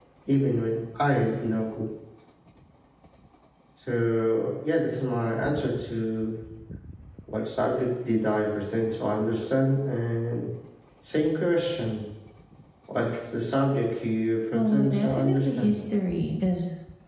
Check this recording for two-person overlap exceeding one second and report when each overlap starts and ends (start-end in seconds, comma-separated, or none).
14.5-15.8